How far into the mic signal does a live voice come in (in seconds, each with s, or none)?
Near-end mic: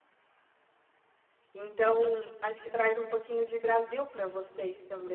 1.5 s